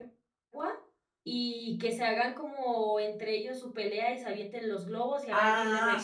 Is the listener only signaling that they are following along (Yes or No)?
No